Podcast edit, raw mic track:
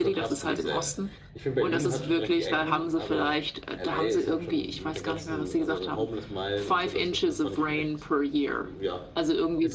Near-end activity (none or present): present